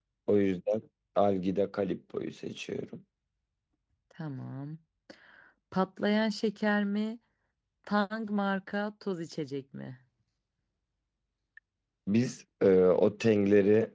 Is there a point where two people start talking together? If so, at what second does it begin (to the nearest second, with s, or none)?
none